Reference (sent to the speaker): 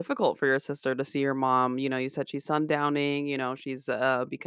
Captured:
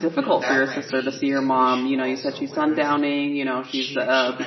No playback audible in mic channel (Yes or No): No